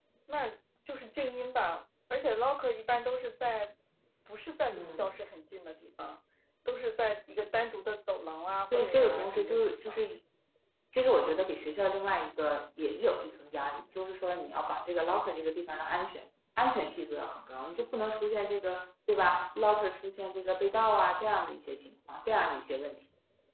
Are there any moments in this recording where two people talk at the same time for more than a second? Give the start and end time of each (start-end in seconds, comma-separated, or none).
8.7-10.0